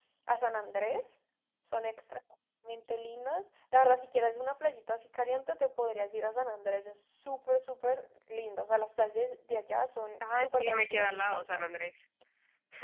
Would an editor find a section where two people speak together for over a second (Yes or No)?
Yes